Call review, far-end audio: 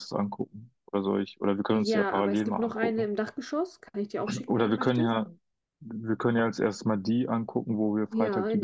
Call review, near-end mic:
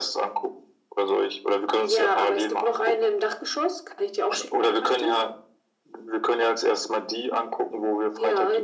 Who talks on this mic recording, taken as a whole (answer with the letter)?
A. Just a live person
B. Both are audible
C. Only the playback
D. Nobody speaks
C